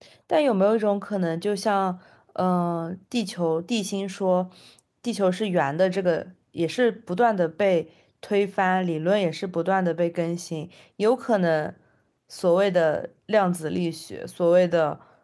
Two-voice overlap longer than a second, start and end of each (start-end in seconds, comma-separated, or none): none